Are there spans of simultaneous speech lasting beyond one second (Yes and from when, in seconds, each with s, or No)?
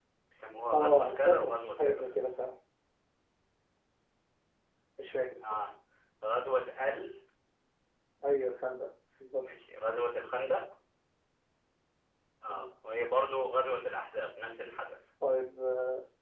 Yes, from 0.7 s